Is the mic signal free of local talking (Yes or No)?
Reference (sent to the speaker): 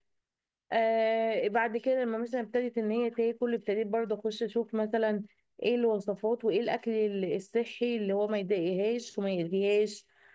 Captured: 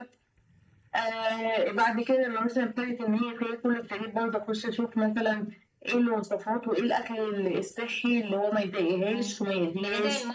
No